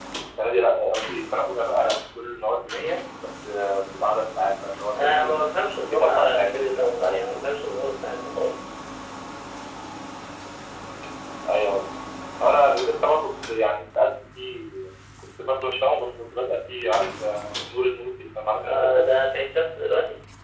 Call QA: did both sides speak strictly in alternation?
No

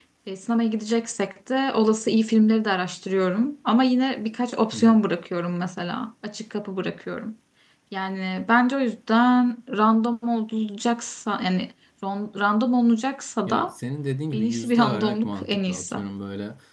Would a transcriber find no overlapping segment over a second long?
No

